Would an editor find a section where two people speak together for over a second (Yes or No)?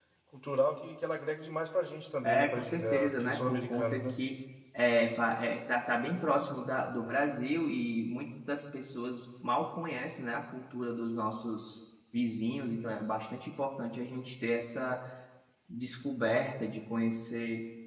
Yes